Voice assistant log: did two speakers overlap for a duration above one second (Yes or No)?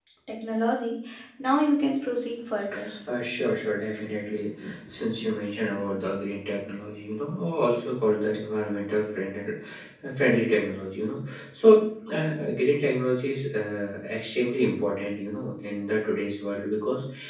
No